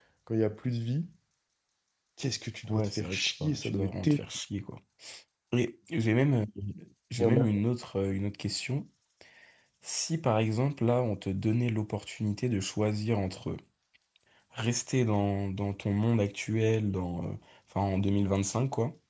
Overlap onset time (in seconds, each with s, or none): 2.7 s